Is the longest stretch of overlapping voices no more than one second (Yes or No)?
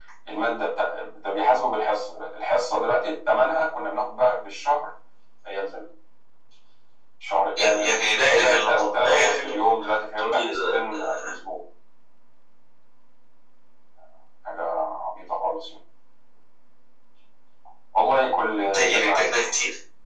No